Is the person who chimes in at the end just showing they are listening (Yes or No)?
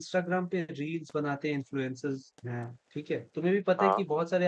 Yes